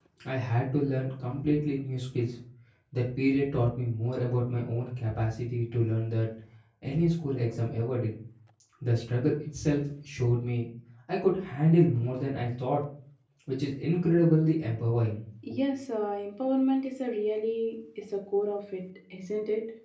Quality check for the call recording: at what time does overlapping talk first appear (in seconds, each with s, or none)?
none